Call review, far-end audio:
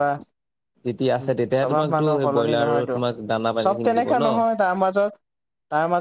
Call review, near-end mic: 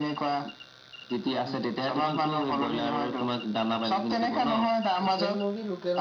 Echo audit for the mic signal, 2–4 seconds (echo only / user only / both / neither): echo only